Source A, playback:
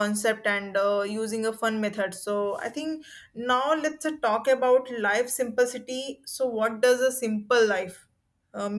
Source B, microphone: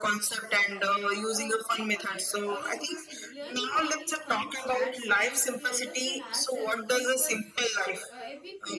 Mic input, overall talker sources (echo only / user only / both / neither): both